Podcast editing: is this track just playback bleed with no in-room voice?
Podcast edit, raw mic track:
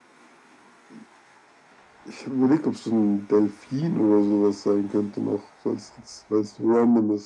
Yes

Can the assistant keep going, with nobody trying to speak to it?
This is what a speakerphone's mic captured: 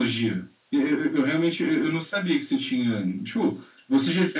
Yes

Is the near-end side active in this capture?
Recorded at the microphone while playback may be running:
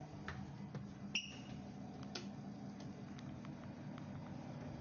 No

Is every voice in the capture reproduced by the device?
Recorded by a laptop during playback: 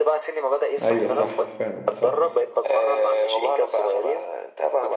No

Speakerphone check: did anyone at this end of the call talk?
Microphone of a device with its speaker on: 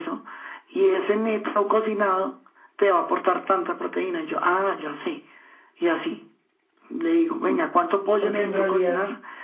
Yes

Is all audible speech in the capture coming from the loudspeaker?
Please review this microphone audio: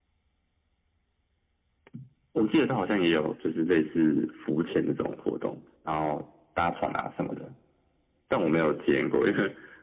Yes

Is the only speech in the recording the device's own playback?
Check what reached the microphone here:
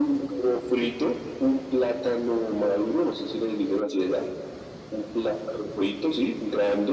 Yes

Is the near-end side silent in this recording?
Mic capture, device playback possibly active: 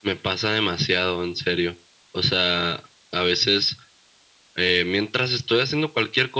Yes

